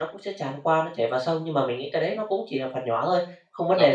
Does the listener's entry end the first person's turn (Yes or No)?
Yes